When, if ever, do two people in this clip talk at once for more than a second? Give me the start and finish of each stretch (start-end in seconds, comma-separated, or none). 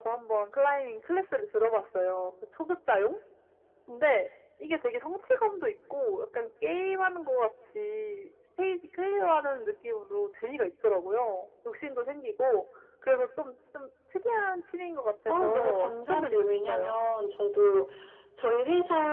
15.3-16.9